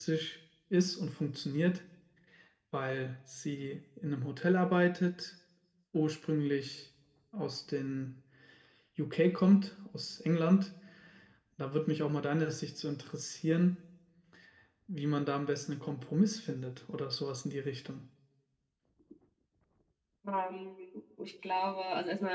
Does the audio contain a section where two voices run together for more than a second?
No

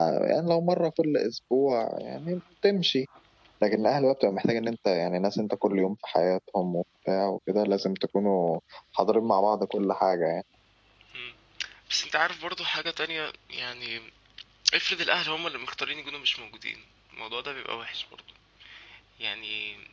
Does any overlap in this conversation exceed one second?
No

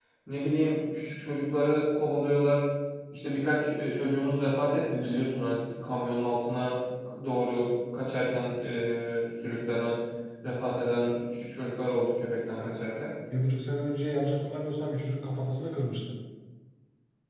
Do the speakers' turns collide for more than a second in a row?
No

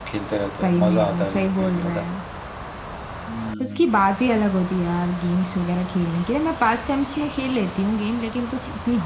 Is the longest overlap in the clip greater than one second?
Yes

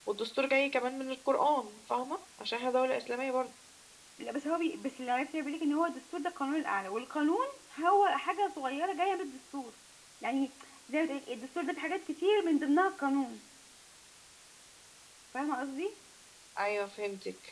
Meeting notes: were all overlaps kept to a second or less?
Yes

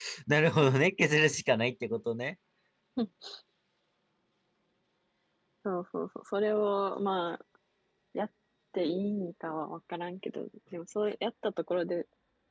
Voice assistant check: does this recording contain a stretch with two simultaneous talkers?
No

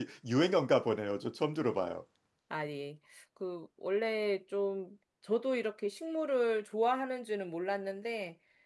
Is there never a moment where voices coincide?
Yes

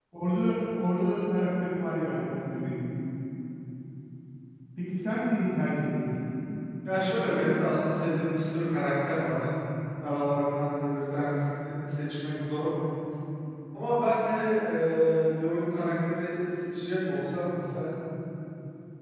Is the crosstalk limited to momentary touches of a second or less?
Yes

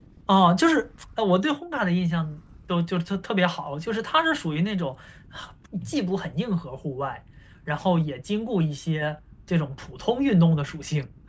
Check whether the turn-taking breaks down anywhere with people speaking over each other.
No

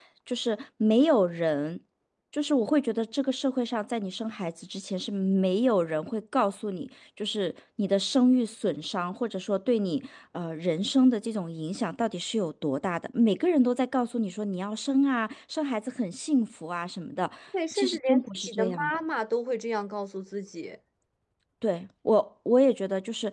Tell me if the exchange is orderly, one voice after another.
No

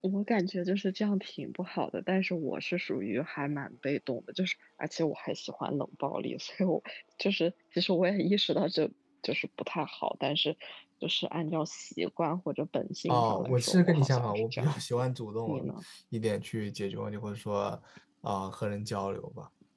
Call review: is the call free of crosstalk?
No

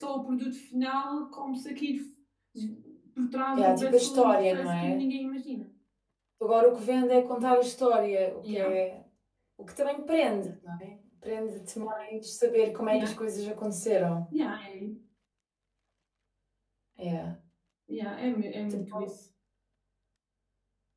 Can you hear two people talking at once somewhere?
Yes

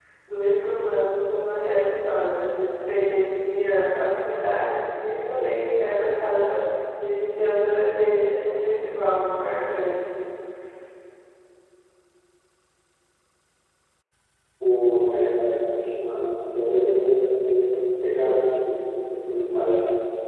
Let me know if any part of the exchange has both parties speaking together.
No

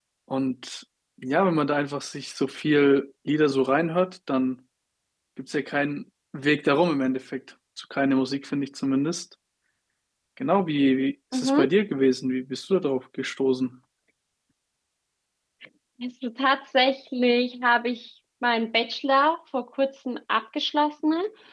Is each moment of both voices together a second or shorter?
Yes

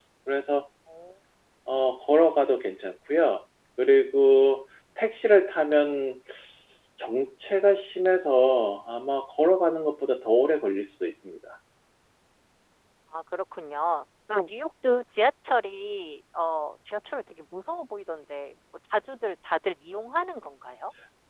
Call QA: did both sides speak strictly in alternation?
Yes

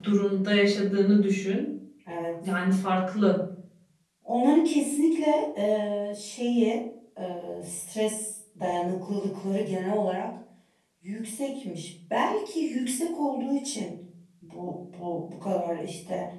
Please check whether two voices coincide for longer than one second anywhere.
No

